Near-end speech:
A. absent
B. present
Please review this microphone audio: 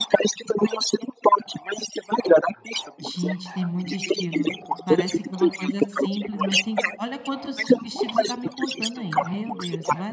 B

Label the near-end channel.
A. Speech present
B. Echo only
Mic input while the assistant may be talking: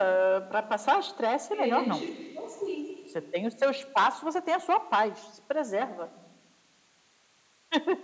A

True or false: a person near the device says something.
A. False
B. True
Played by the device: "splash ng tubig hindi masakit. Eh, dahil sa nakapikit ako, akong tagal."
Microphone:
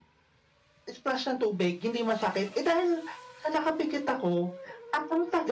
A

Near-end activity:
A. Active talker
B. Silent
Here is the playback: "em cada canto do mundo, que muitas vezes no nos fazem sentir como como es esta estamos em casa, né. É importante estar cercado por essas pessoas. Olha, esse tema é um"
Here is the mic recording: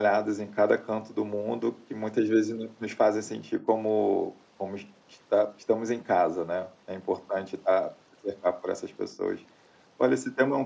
B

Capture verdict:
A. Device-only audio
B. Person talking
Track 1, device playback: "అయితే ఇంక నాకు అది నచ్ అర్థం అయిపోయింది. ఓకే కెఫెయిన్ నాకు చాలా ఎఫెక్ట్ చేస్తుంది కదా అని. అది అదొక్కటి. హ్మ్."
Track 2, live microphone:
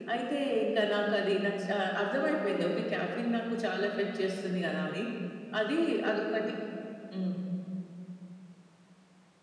A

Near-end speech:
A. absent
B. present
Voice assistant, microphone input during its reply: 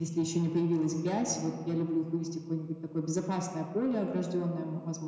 A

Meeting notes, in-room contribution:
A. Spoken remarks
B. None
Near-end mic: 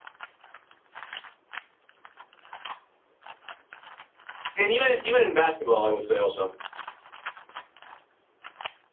A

